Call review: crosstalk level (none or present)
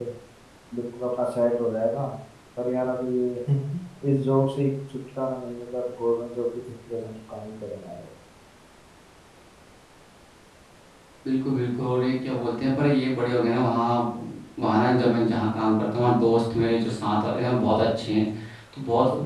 none